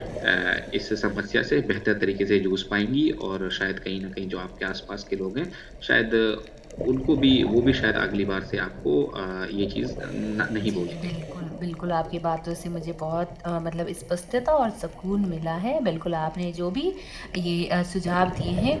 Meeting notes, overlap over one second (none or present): none